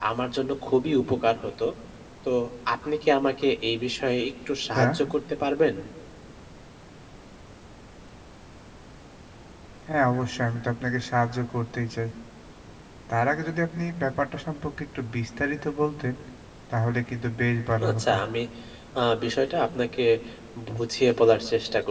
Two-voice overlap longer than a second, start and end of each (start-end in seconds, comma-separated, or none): none